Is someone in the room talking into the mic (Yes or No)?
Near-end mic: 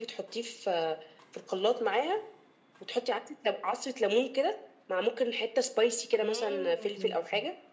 Yes